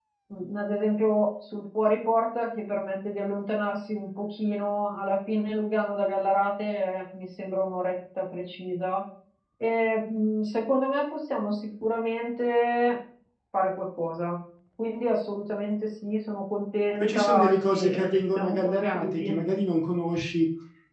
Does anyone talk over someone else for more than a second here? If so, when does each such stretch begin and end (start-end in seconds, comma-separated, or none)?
17.0-19.3